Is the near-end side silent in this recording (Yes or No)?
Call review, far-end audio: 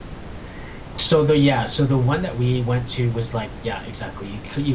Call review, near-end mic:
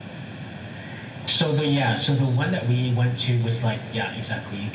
Yes